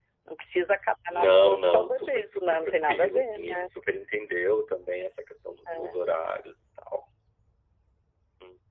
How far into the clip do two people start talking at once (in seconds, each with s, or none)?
1.1 s